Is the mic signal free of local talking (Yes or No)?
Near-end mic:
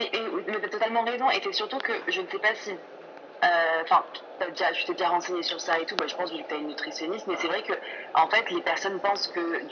Yes